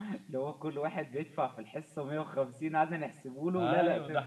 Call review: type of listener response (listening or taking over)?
taking over